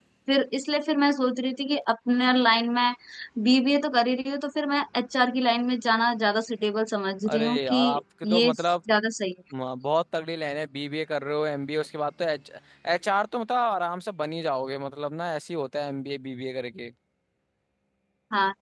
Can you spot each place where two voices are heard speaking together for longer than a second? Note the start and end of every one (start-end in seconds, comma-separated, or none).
7.3-8.6